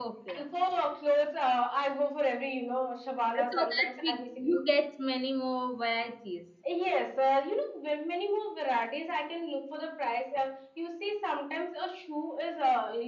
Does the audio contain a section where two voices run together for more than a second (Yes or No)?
Yes